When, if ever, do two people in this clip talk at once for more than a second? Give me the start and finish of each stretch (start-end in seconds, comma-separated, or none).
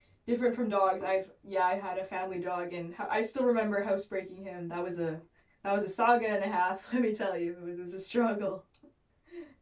none